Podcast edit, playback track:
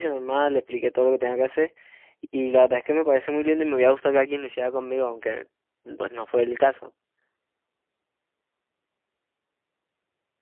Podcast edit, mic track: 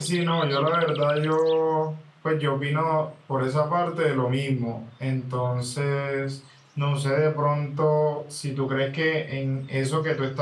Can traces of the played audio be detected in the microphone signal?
No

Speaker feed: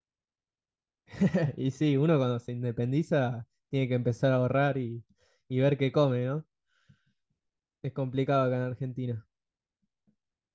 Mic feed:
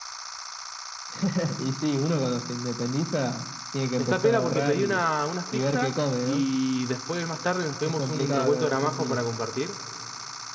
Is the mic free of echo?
No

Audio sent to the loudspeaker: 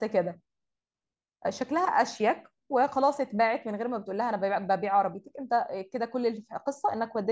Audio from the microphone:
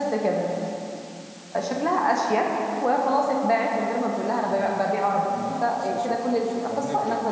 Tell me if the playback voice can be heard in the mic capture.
Yes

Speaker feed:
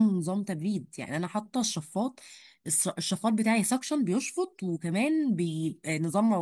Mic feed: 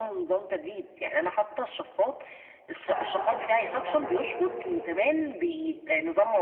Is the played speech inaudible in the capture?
No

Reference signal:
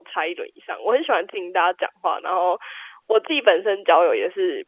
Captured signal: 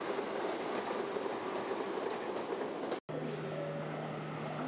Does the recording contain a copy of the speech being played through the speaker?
No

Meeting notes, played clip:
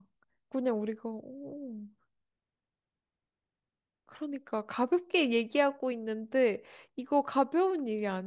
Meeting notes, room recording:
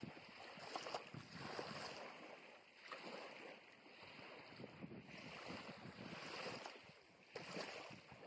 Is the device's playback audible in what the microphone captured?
No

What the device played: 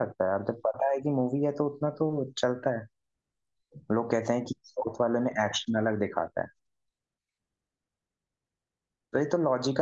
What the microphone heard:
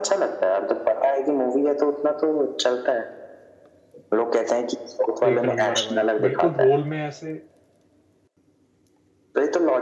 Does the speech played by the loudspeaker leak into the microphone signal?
Yes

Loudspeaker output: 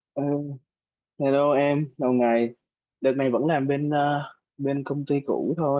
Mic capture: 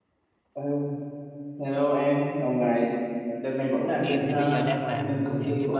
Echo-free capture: No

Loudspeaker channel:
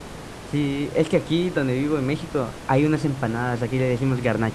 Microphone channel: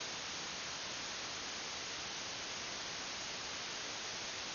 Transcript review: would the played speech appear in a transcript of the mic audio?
No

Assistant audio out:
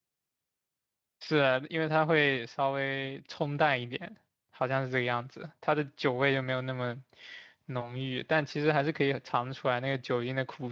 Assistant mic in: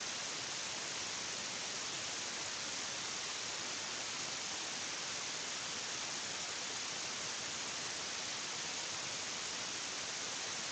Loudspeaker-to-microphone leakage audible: No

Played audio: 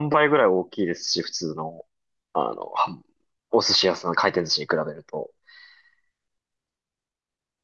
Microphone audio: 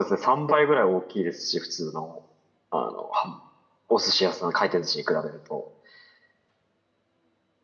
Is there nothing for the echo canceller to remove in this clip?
No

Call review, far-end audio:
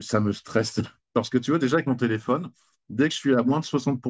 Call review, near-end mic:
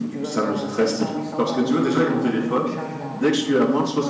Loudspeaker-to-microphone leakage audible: Yes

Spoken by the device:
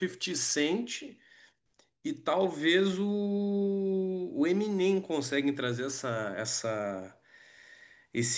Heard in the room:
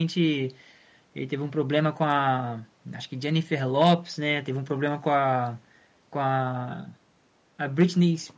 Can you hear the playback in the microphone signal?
No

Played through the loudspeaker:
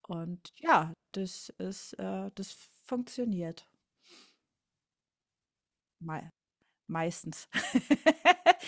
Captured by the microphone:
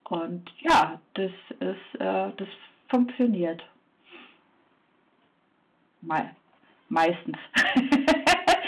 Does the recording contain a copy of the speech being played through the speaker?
Yes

